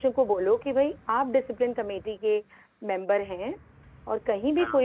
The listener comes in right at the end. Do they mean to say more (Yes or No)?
No